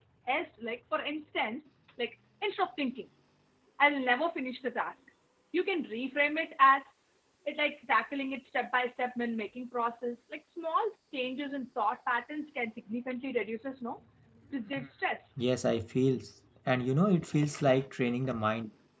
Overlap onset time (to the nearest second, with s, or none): none